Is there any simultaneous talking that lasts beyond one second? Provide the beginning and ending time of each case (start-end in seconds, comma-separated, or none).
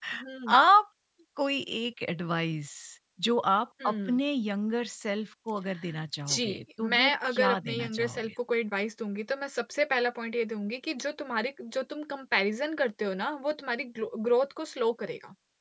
6.3-8.3